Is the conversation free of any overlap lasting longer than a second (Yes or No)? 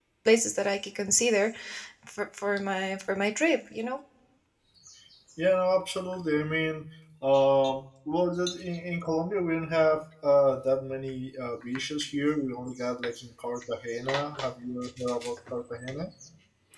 Yes